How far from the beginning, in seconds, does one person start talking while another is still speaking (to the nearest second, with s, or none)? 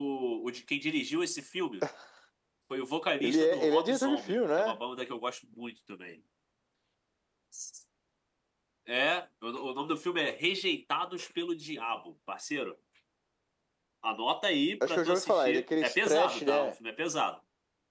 3 s